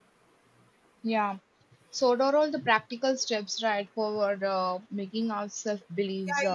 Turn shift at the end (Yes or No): Yes